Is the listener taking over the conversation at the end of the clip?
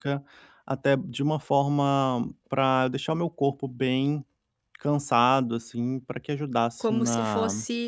Yes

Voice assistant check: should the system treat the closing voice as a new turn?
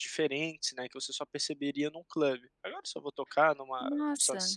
No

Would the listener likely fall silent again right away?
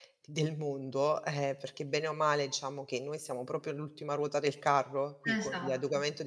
Yes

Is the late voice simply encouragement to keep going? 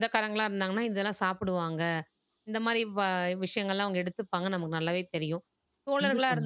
Yes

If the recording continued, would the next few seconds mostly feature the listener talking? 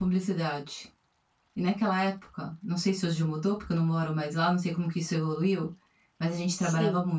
No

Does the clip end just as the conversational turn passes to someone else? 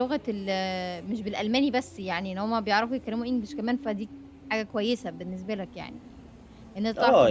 Yes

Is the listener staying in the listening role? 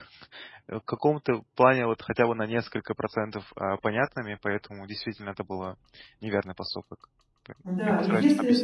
No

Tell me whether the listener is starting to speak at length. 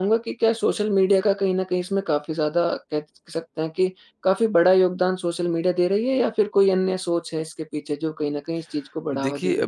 Yes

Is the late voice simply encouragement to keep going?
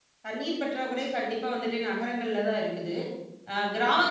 Yes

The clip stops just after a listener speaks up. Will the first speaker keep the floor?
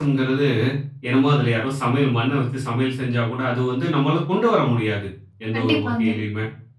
Yes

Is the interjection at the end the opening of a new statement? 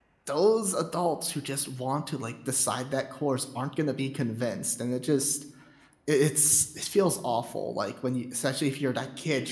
No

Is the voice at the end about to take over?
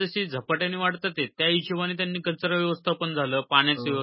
No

